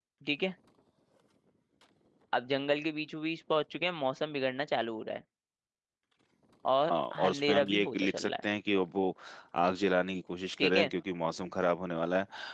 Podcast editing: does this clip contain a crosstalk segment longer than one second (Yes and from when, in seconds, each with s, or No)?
Yes, from 6.9 s